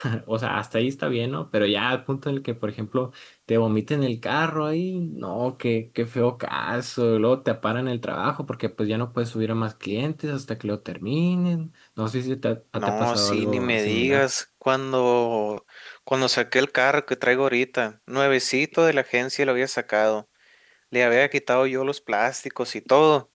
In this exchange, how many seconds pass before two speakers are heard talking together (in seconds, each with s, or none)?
12.8 s